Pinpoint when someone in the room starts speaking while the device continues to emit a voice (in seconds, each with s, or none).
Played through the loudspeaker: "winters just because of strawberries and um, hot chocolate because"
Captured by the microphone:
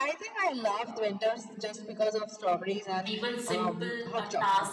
3.1 s